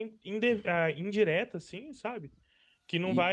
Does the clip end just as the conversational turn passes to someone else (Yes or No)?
No